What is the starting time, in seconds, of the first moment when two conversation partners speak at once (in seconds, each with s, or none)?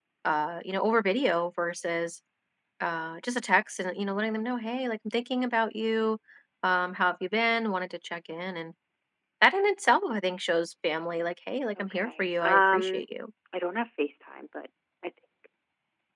11.8 s